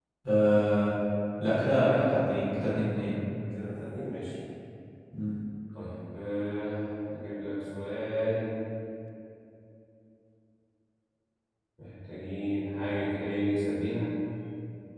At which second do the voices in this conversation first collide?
none

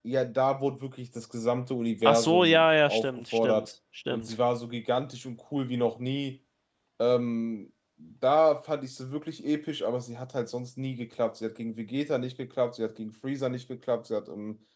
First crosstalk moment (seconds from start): 2.0 s

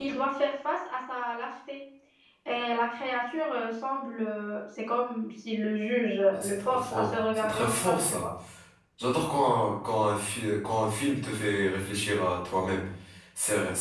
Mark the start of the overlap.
6.3 s

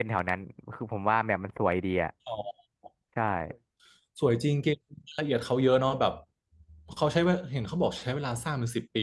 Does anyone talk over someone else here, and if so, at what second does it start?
none

